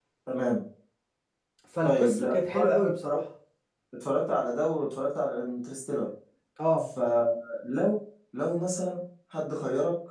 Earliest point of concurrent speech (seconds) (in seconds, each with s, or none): 1.8 s